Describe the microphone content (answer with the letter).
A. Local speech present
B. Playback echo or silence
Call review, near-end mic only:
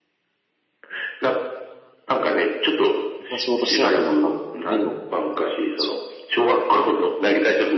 A